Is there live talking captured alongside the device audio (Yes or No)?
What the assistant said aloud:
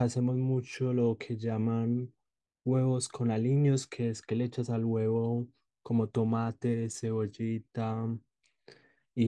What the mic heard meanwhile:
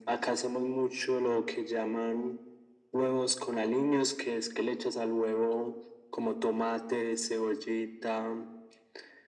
No